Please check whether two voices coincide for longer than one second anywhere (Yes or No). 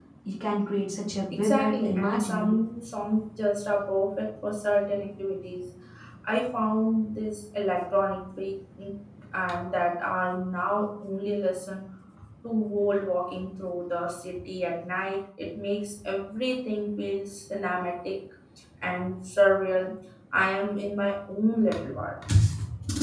Yes